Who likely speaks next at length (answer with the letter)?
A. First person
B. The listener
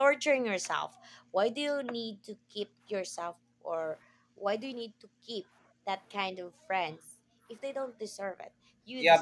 B